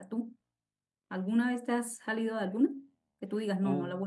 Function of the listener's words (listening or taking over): listening